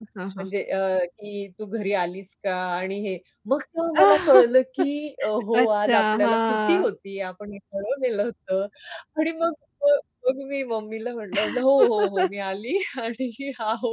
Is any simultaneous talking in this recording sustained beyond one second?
Yes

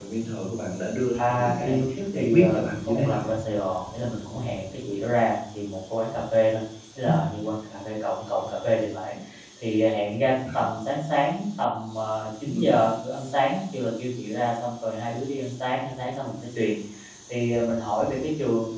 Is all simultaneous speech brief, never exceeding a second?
No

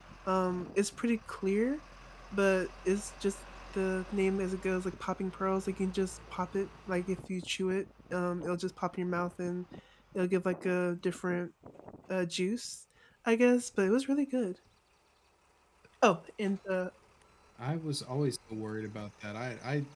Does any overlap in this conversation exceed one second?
No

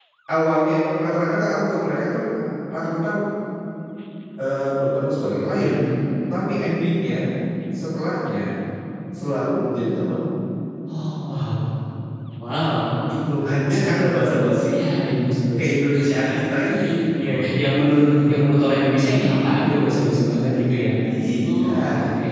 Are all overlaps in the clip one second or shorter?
No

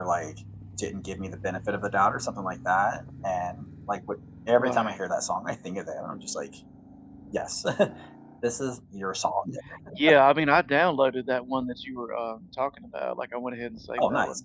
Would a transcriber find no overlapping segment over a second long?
Yes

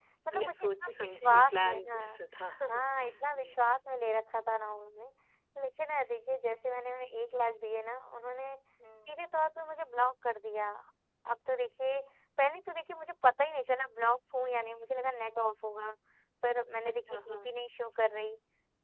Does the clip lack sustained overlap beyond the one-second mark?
No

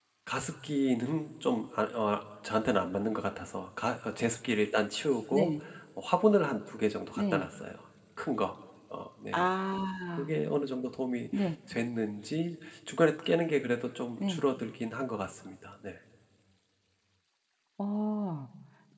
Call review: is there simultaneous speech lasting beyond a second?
No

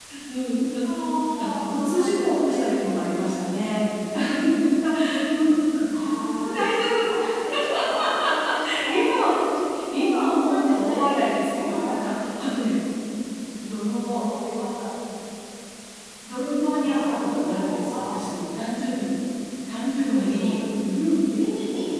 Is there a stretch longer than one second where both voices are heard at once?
Yes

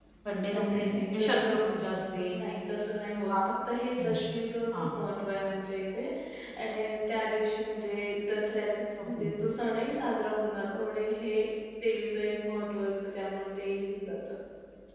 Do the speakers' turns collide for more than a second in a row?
Yes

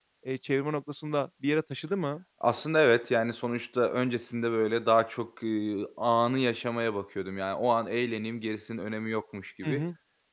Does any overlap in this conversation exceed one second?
No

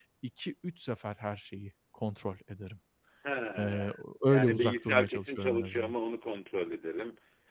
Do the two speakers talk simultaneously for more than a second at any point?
Yes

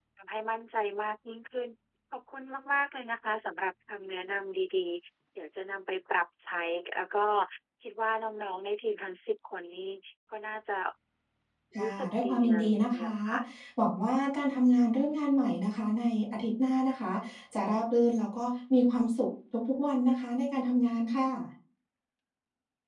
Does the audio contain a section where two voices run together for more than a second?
Yes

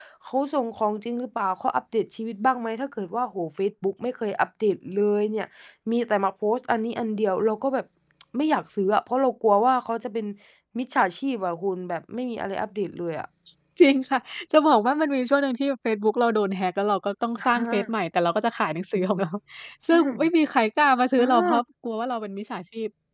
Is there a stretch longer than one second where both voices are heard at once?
No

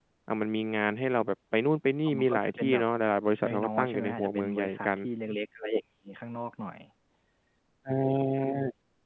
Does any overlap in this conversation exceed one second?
Yes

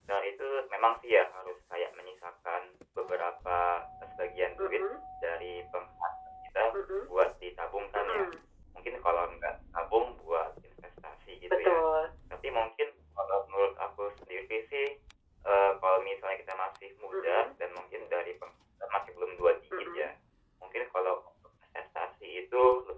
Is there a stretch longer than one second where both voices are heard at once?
No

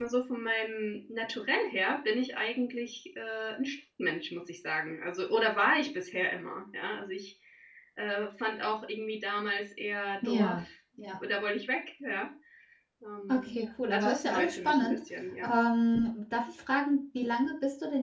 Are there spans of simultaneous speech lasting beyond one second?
Yes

